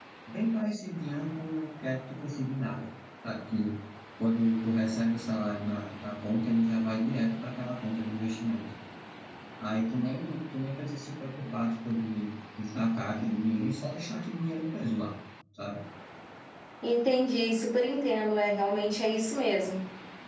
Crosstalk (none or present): none